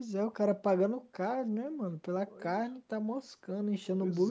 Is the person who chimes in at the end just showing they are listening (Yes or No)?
No